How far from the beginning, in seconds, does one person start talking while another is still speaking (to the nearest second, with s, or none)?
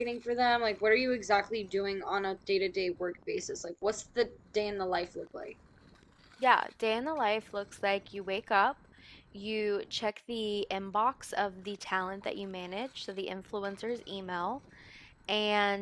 none